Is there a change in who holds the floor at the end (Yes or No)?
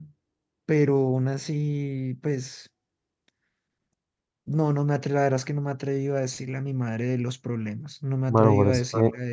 Yes